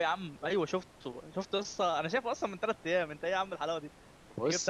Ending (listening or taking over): listening